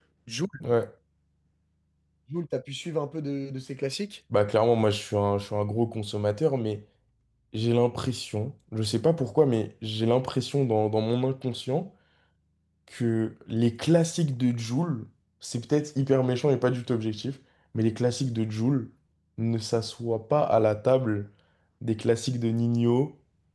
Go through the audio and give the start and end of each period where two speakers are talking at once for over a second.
none

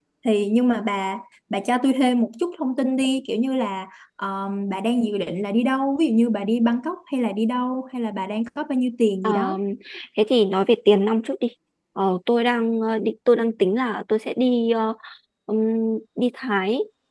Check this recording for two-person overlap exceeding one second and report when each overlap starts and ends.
none

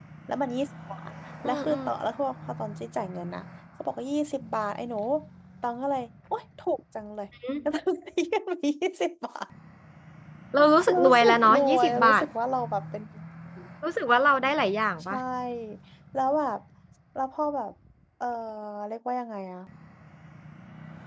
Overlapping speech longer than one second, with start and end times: 10.9-12.2

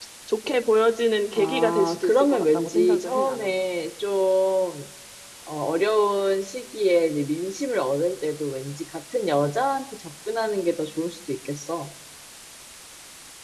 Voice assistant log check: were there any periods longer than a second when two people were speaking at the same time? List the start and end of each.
1.4-3.6

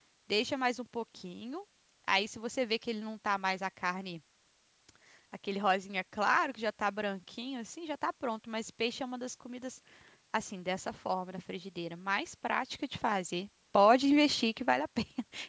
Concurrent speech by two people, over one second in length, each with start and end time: none

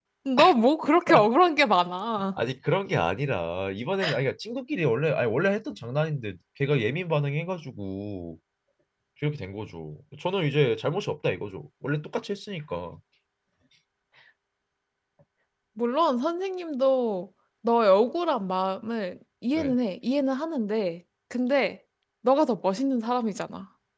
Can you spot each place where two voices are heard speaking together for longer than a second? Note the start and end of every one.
none

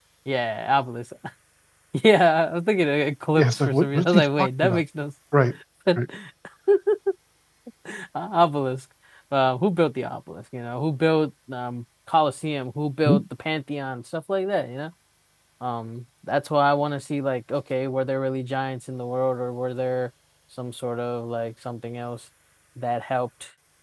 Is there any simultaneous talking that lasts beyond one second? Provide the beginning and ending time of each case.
3.4-4.8

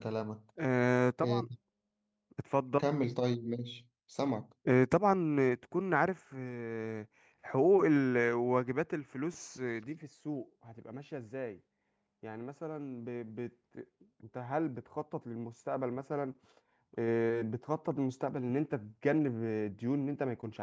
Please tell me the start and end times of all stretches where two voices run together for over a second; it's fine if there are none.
none

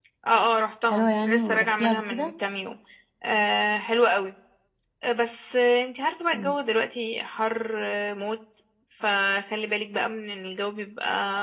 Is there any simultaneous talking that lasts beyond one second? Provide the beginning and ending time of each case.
0.9-2.3

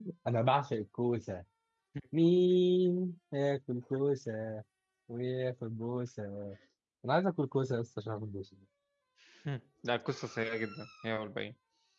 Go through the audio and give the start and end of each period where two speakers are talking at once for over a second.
none

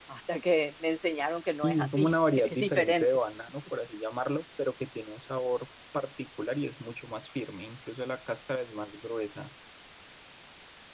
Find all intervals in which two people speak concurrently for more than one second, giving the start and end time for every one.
1.6-3.1

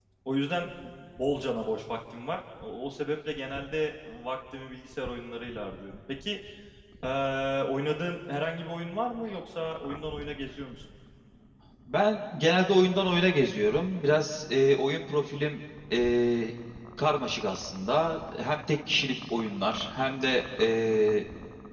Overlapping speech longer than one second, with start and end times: none

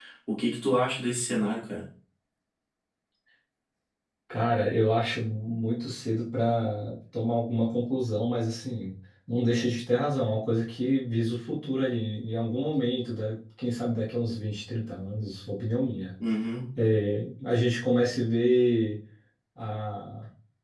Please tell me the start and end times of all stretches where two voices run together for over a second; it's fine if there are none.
none

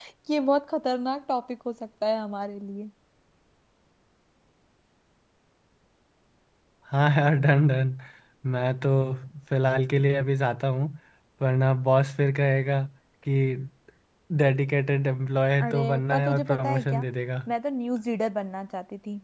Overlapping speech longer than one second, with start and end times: 15.6-17.1

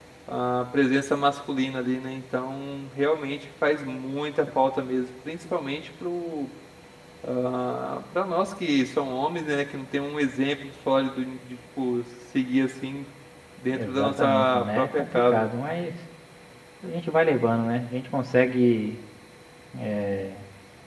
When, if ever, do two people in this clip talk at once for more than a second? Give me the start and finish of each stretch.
13.7-15.5

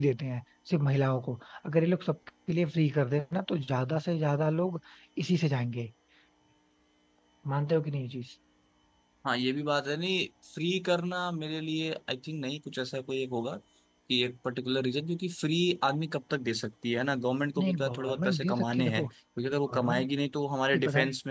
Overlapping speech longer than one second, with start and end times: 17.6-19.0

